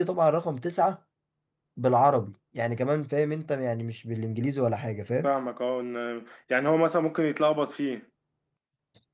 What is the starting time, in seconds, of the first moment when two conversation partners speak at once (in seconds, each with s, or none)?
none